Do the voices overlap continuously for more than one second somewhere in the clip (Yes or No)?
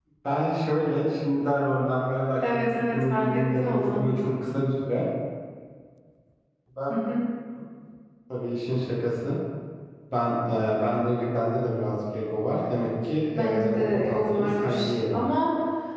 Yes